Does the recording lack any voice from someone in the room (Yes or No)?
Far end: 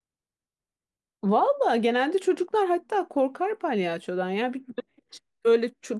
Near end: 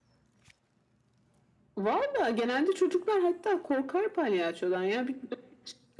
Yes